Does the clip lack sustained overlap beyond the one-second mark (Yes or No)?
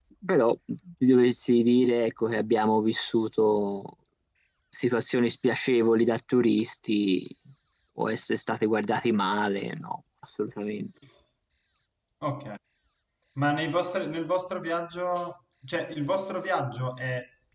Yes